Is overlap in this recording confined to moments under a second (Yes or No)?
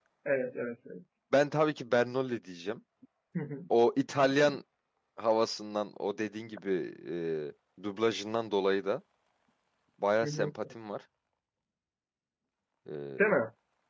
Yes